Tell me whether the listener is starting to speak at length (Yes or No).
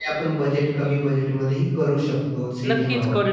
Yes